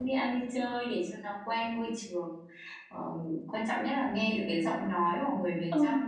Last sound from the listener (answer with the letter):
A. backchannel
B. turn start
A